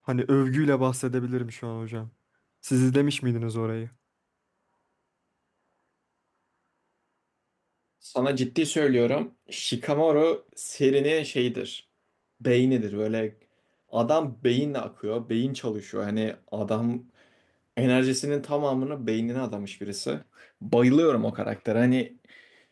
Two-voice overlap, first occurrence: none

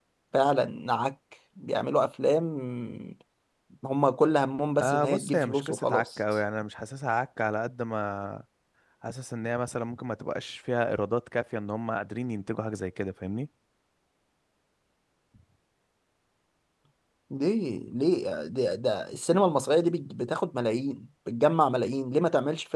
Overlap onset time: 4.8 s

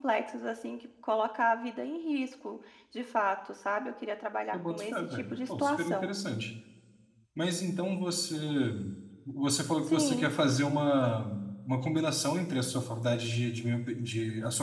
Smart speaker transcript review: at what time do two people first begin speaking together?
4.5 s

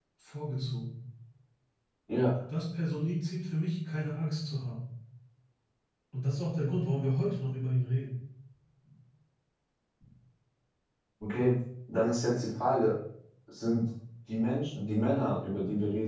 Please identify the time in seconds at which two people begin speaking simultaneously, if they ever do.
none

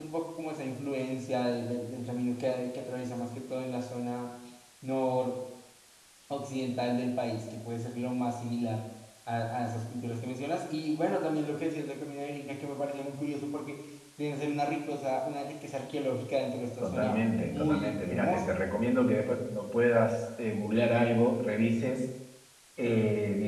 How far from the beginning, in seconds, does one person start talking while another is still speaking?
16.8 s

